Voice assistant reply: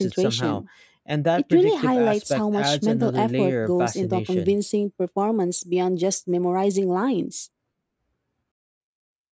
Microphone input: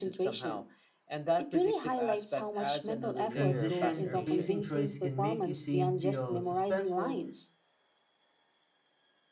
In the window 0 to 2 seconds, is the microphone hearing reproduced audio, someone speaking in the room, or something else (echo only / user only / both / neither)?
echo only